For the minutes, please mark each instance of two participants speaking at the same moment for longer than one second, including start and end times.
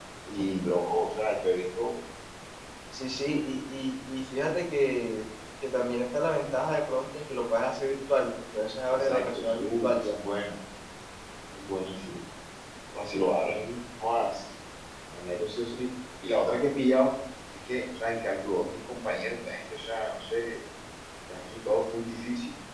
8.9-10.2

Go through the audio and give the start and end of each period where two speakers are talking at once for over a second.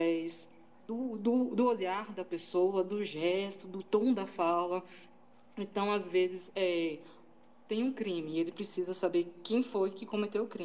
none

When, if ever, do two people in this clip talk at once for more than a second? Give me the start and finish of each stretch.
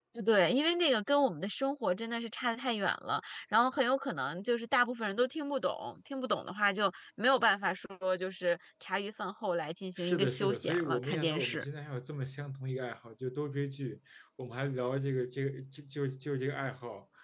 10.0-11.6

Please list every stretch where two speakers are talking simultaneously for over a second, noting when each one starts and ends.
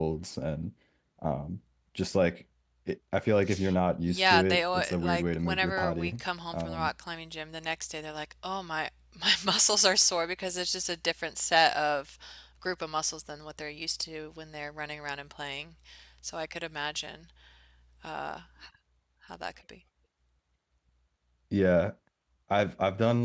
4.0-6.1

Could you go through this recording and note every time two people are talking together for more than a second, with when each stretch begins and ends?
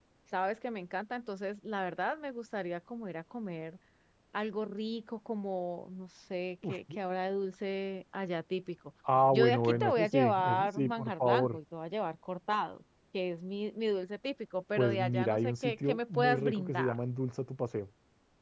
9.3-11.6, 14.8-16.9

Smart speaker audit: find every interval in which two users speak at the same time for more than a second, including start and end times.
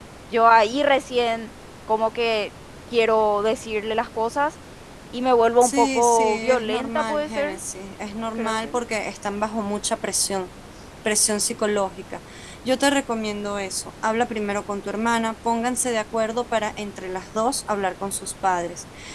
5.6-7.6

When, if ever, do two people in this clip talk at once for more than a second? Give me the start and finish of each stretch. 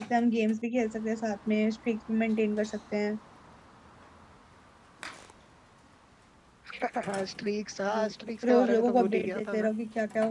8.4-9.7

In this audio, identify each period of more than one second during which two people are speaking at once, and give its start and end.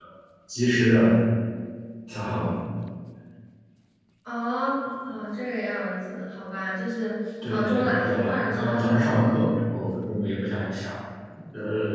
7.4-8.8

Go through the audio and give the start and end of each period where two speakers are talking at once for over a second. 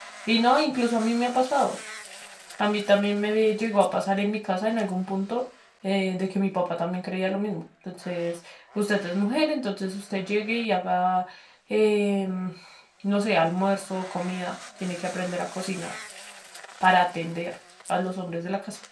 none

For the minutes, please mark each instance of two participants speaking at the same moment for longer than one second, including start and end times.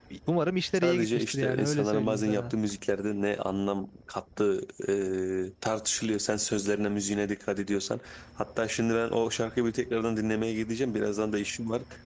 0.8-2.5

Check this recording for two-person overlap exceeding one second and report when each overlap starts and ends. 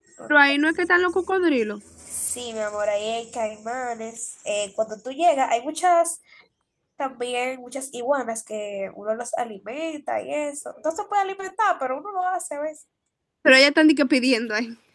none

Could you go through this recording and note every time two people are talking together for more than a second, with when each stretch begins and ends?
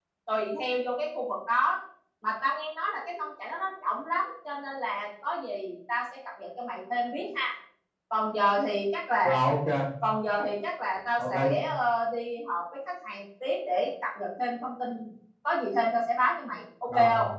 none

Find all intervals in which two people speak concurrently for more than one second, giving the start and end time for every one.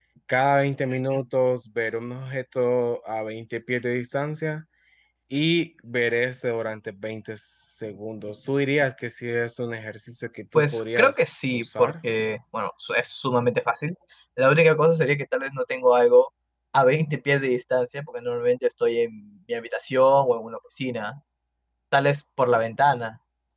10.6-11.9

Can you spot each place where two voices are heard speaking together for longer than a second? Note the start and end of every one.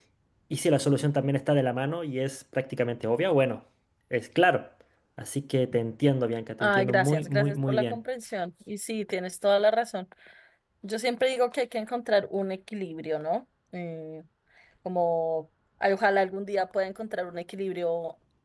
6.6-8.0

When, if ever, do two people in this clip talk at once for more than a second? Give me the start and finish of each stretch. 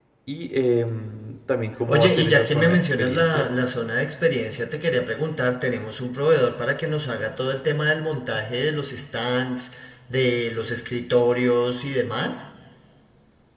1.9-3.5

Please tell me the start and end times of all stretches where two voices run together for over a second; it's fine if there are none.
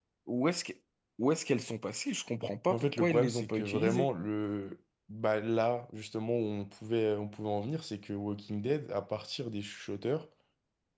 2.7-4.1

